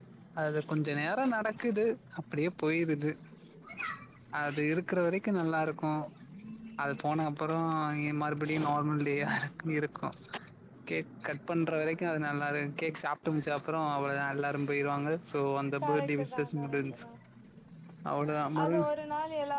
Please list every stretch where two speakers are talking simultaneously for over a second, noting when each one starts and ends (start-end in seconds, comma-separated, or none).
15.8-17.0